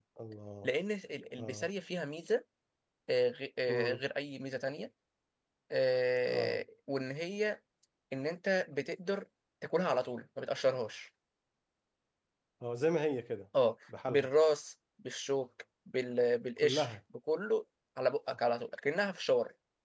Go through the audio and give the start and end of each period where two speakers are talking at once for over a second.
none

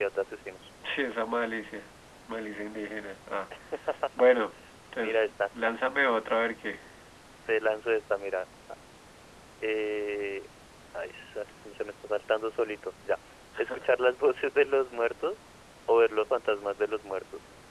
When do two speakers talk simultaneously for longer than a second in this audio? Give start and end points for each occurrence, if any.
none

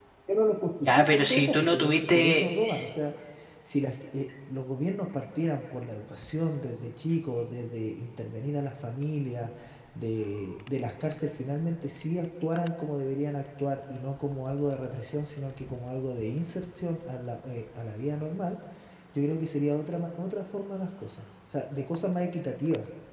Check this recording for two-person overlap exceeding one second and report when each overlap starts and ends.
0.8-2.5

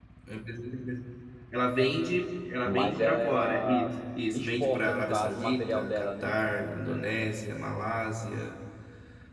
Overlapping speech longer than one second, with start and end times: 2.6-3.9, 4.3-6.3

